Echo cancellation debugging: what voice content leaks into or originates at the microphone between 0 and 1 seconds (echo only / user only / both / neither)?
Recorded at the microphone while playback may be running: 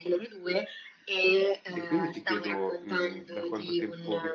echo only